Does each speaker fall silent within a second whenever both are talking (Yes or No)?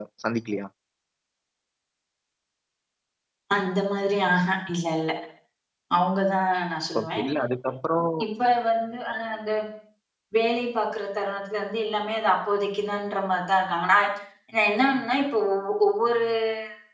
Yes